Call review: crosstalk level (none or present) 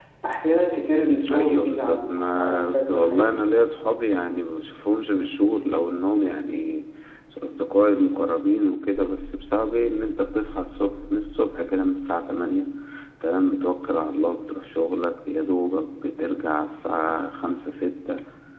present